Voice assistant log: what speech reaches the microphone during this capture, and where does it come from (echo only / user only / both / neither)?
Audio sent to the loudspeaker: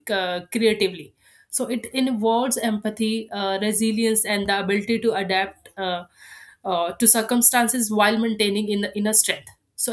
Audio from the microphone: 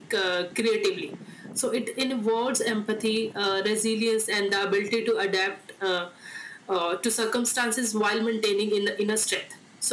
echo only